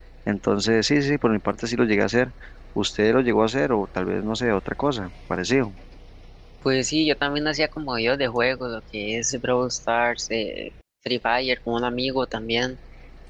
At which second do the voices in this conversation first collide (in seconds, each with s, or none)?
none